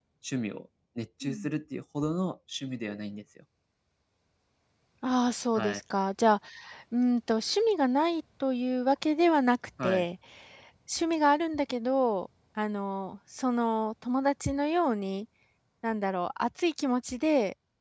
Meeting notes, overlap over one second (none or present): none